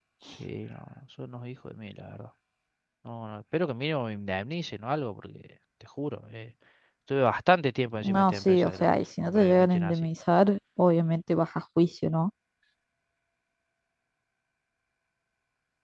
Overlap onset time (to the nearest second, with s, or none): 8 s